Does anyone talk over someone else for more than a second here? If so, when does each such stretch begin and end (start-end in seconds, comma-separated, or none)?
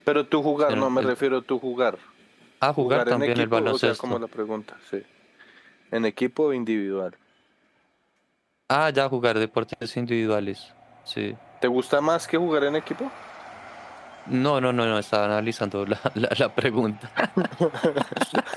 2.8-4.2